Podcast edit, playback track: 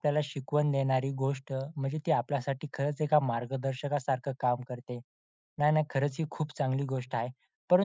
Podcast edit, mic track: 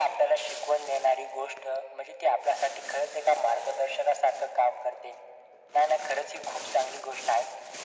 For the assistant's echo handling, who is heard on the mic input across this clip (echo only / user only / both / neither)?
echo only